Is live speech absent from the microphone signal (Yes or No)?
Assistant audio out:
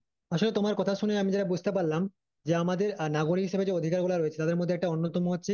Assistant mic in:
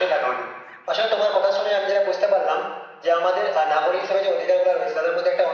Yes